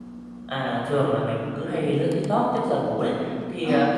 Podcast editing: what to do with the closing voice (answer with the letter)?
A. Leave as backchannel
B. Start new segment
A